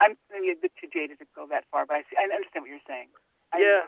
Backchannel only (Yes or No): No